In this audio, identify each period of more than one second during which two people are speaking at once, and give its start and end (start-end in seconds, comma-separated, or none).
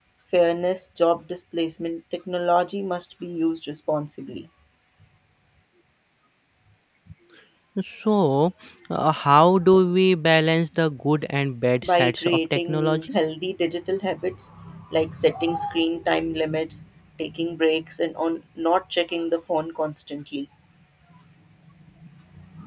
11.8-13.1